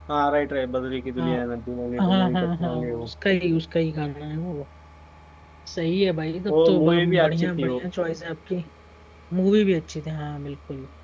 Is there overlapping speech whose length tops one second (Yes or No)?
Yes